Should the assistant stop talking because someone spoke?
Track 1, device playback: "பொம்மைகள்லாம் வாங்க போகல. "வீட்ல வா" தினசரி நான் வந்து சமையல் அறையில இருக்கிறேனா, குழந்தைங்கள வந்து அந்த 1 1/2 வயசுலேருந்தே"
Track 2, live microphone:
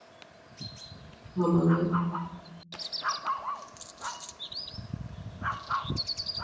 Yes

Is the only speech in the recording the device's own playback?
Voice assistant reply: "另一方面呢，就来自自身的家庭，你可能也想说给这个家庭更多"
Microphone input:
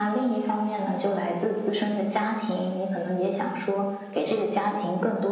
Yes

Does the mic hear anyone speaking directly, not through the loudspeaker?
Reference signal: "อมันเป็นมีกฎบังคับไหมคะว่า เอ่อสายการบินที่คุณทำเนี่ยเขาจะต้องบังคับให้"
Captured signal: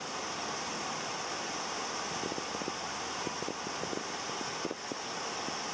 No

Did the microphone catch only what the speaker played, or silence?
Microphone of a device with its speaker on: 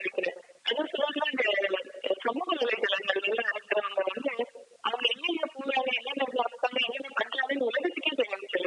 Yes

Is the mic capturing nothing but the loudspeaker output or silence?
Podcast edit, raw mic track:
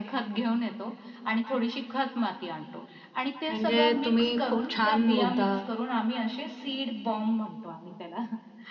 No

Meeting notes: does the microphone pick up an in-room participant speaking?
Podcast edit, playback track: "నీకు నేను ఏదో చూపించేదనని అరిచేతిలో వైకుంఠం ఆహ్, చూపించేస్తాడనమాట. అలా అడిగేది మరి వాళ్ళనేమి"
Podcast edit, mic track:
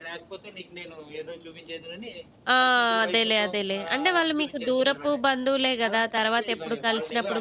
Yes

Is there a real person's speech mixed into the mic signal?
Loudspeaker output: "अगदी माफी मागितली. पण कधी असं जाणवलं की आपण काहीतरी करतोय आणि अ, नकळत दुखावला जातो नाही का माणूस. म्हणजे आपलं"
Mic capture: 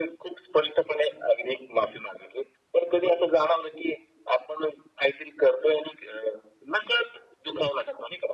No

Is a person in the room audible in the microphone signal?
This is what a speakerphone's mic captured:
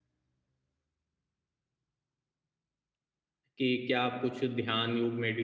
Yes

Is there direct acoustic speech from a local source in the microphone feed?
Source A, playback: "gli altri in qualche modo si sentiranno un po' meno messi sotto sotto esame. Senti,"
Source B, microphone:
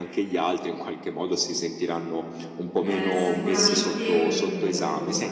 Yes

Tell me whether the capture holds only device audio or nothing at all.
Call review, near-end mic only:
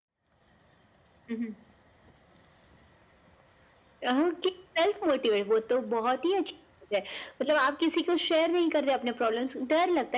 Yes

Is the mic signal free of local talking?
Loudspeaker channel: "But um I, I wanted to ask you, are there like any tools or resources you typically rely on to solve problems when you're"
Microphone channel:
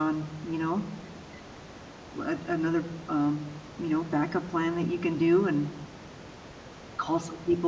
No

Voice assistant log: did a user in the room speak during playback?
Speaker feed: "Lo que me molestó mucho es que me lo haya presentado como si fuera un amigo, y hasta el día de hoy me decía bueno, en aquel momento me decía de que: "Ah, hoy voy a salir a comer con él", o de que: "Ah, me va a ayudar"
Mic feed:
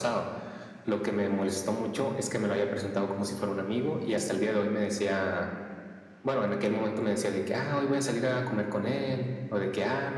No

